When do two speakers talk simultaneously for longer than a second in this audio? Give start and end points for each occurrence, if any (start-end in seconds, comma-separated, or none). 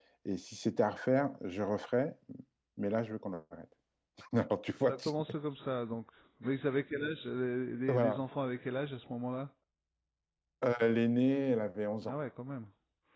none